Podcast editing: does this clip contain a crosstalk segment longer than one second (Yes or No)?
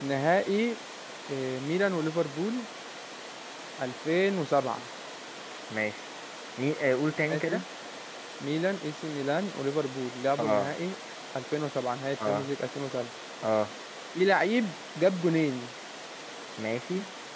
No